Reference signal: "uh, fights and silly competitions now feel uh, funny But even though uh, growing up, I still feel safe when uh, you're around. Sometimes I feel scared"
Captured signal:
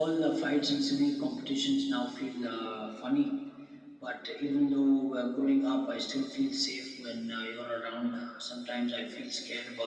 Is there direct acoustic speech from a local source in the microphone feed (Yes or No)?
No